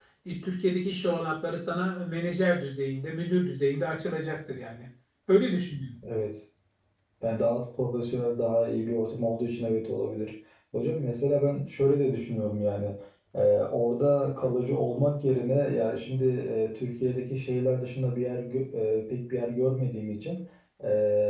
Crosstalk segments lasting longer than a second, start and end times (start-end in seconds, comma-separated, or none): none